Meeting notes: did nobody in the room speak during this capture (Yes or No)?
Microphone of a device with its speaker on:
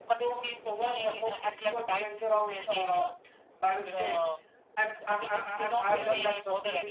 No